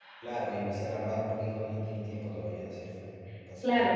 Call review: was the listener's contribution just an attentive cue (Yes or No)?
No